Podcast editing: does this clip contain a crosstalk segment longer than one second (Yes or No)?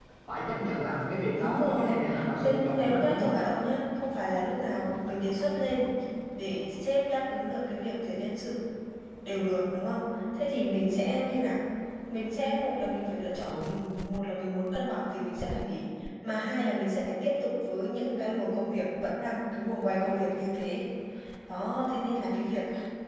Yes